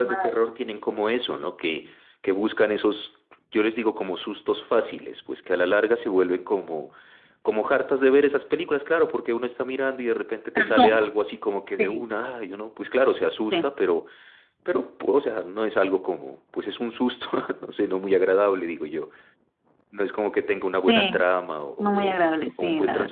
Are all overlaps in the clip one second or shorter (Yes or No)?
Yes